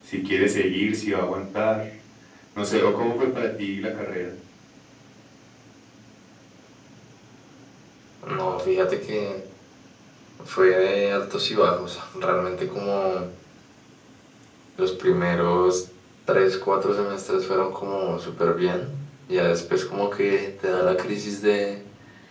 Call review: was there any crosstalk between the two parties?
No

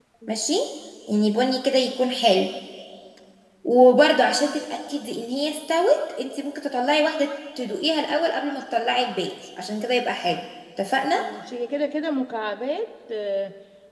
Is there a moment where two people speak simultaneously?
No

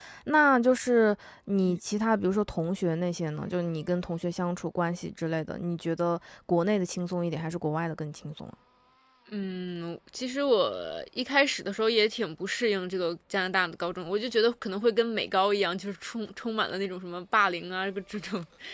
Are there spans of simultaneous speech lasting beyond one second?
No

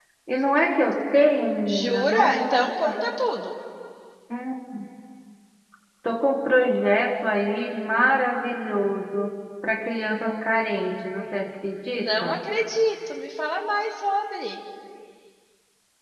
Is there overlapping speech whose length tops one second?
Yes, from 1.6 s

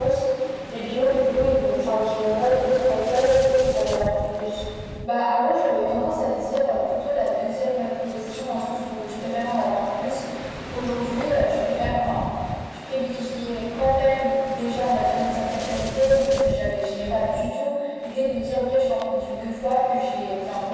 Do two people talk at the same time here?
No

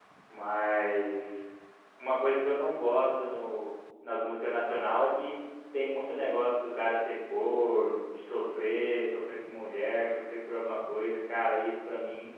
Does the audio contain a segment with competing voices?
No

